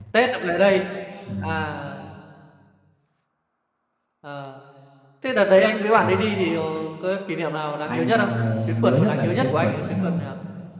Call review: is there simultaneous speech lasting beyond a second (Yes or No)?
Yes